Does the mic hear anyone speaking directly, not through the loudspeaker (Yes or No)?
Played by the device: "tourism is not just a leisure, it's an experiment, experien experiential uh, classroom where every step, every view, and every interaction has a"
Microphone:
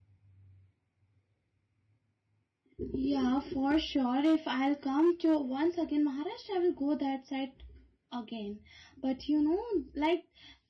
Yes